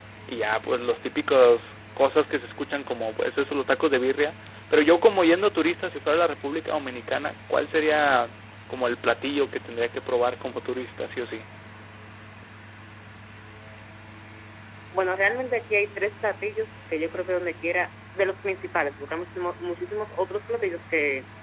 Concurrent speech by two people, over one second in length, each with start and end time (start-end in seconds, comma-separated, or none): none